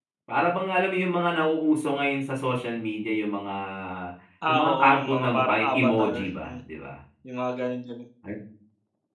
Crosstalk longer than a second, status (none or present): present